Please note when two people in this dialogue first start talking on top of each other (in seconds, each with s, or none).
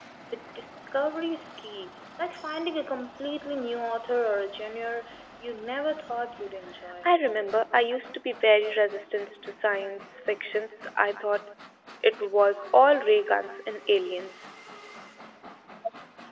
none